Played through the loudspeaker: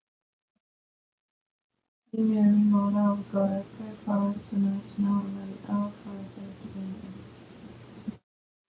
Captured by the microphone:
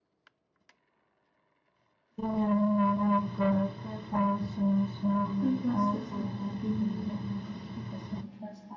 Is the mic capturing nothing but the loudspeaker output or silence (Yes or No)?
No